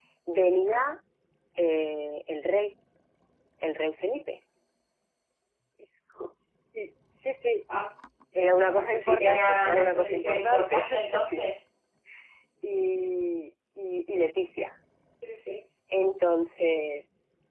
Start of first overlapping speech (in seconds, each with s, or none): 8.8 s